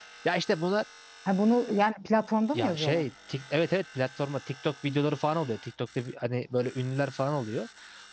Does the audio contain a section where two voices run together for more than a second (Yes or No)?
No